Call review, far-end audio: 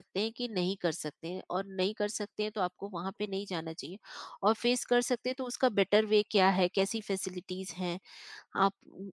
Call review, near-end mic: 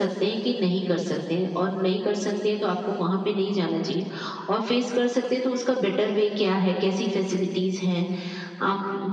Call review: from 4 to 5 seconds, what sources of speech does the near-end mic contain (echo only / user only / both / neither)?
echo only